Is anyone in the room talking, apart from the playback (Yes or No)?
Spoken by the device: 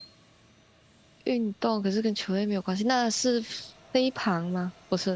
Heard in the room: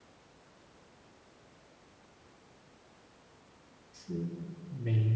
Yes